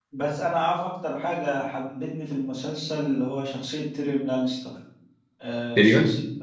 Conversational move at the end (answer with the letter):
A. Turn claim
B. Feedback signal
B